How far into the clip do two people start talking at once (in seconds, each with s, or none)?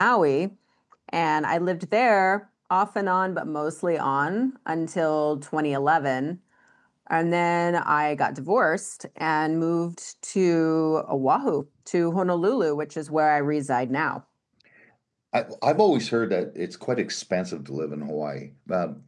none